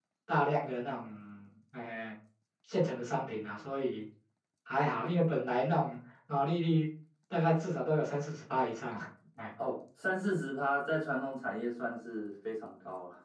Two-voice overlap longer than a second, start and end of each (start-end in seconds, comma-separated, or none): none